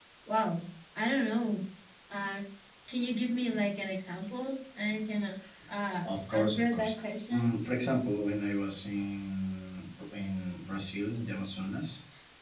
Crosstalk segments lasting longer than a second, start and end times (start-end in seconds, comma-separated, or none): 6.0-7.5